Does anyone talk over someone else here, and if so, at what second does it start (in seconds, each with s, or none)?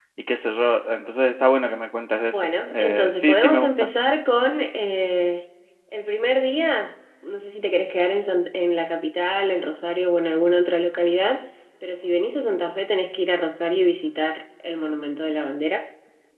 2.3 s